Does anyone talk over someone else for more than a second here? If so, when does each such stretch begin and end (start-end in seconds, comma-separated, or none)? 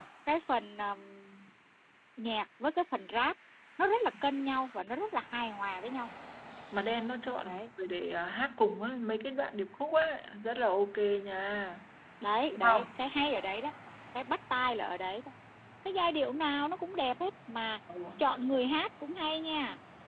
none